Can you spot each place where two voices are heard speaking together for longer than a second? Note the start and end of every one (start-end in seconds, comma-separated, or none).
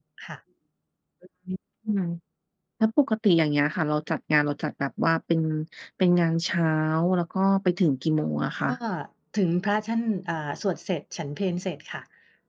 none